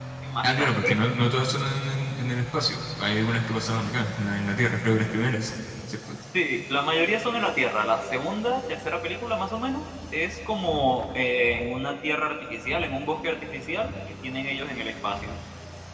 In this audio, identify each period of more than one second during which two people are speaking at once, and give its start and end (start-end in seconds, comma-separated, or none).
none